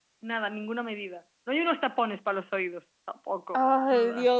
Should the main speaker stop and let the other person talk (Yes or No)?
Yes